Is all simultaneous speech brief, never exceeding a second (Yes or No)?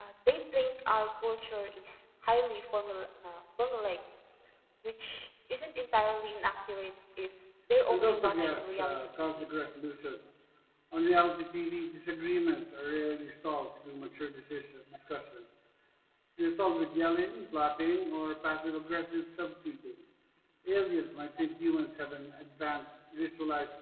No